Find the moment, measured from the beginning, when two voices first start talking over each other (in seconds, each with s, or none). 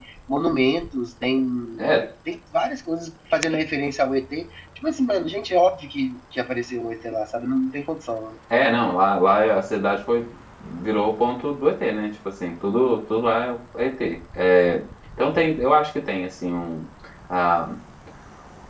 none